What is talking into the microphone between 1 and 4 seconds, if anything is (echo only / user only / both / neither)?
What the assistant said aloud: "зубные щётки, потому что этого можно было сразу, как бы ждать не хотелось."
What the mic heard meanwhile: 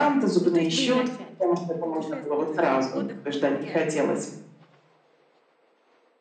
both